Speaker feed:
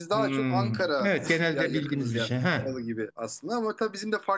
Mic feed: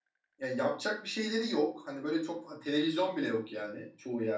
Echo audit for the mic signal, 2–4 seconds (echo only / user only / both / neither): user only